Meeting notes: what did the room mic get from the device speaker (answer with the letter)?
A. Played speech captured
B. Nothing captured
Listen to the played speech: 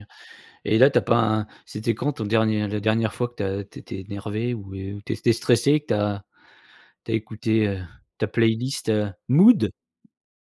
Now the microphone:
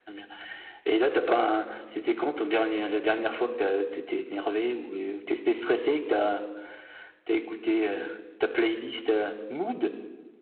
A